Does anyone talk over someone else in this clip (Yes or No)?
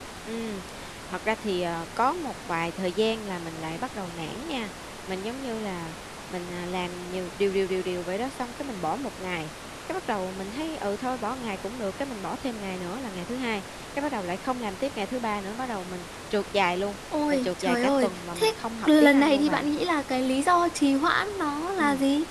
Yes